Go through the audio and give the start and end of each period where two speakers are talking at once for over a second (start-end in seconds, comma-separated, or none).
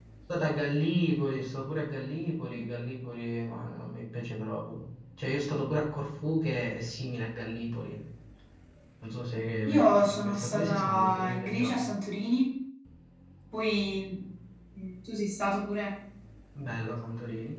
9.7-11.8